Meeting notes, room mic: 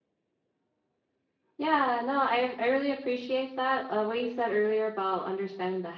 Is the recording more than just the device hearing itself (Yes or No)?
Yes